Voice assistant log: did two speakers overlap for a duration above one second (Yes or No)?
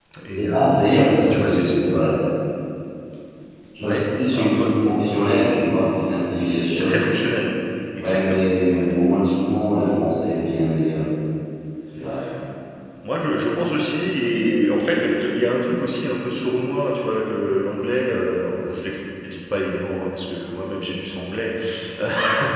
Yes